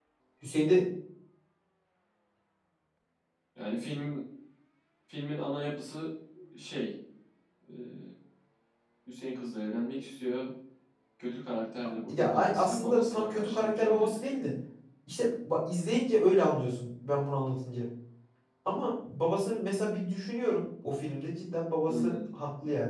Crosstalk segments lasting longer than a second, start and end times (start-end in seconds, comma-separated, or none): 12.1-14.2